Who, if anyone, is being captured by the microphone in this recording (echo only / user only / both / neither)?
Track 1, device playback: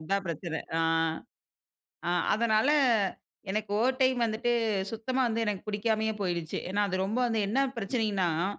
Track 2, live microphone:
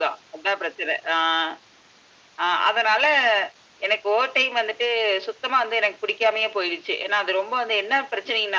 echo only